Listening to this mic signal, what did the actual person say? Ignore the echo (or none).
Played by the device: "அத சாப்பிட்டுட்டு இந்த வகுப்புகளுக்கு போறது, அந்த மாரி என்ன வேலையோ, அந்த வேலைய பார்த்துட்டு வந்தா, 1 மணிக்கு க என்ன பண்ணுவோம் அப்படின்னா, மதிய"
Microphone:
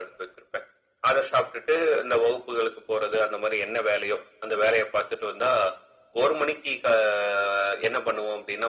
none